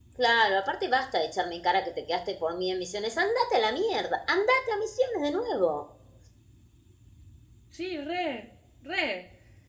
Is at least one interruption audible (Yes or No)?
No